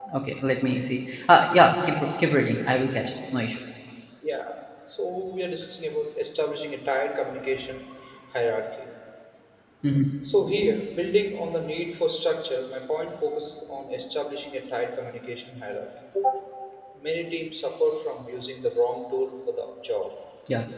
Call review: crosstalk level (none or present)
none